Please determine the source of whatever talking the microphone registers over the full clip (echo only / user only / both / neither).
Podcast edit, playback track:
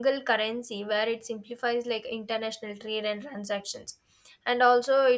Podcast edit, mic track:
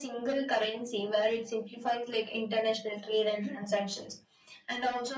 echo only